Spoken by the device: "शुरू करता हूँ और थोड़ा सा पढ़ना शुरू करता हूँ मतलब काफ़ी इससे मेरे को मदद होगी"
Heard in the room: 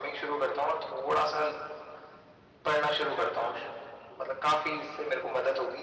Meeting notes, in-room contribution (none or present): none